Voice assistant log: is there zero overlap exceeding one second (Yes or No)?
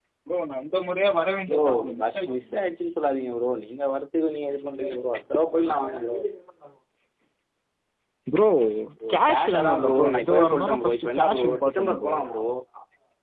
No